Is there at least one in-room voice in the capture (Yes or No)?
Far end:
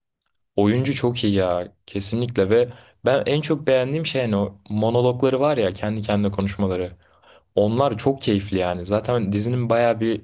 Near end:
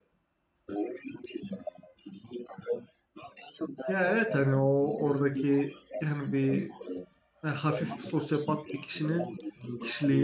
Yes